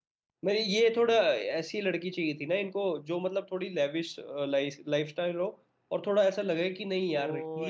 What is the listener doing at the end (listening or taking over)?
taking over